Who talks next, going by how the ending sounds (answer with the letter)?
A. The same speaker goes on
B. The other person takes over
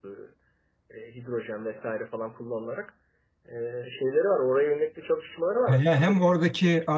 B